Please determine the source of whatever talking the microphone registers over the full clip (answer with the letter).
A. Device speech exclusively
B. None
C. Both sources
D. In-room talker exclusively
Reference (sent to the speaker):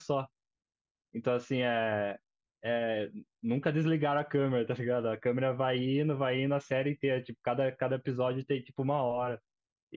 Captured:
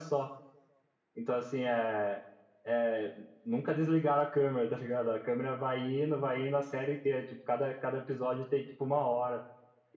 A